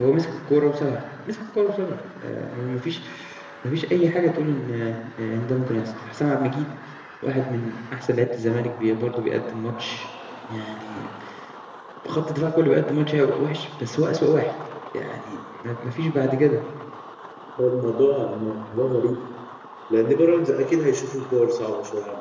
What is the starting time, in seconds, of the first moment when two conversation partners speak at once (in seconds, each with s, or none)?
none